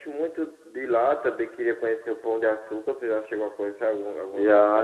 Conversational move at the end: taking over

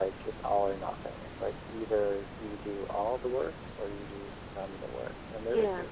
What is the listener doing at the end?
listening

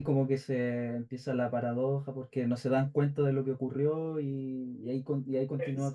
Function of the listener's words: listening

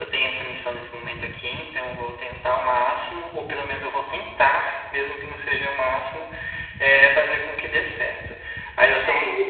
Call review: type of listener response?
listening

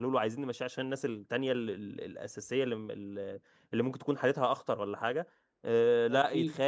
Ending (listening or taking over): listening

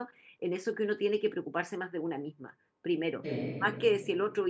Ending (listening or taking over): listening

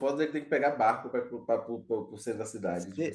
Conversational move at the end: taking over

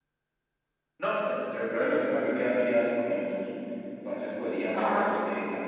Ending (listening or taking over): listening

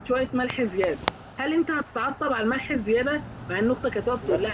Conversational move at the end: listening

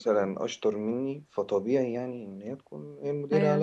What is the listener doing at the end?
taking over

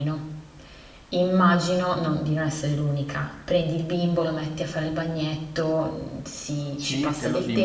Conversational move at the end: taking over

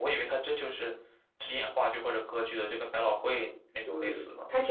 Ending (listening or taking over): taking over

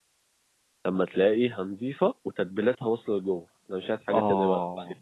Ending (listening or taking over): taking over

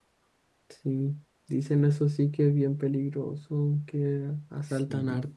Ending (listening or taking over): listening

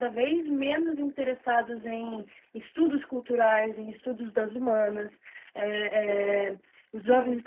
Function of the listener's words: listening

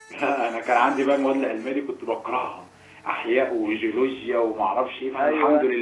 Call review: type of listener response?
listening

